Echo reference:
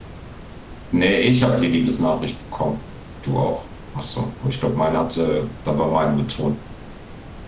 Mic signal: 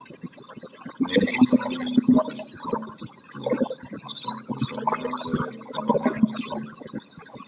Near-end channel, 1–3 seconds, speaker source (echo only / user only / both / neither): echo only